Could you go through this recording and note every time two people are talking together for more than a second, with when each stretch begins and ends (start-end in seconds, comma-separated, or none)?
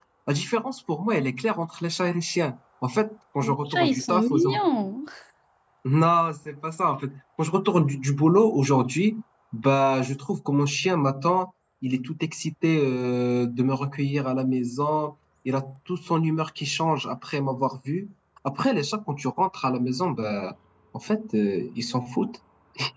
3.4-4.6